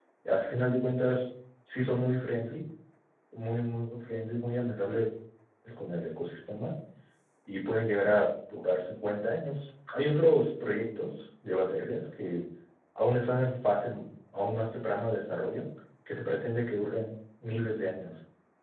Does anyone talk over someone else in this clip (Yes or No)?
No